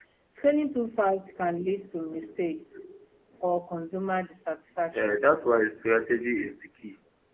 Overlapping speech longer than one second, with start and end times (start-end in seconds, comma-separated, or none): none